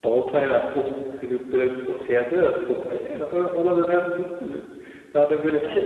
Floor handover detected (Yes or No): No